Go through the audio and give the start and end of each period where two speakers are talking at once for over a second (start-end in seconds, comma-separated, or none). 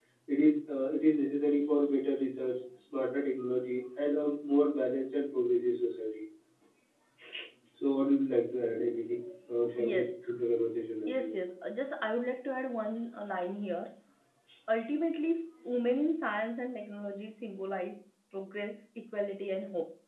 none